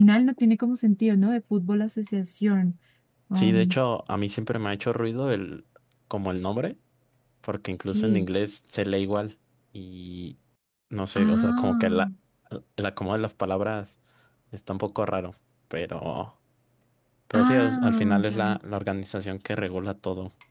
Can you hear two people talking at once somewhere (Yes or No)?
Yes